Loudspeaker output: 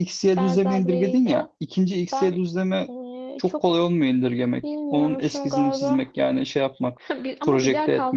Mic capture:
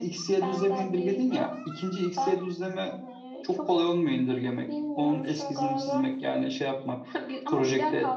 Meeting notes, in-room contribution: none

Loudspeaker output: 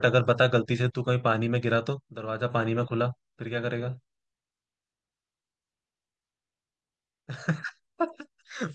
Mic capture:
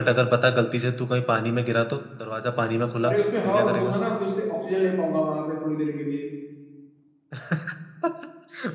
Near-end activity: present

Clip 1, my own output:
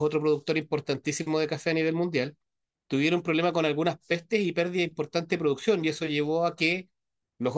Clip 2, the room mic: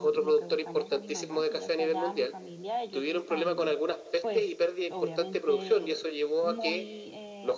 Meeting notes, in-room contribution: present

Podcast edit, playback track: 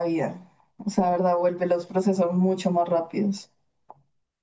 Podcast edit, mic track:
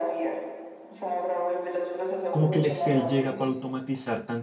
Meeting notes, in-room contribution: present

